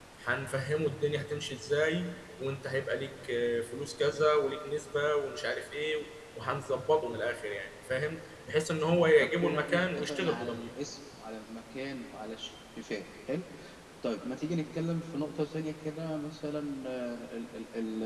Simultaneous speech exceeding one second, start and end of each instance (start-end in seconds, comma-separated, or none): 9.2-10.7